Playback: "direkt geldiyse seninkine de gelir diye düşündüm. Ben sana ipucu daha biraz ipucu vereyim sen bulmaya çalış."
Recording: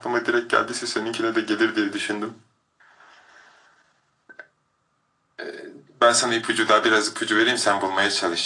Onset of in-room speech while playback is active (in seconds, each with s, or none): none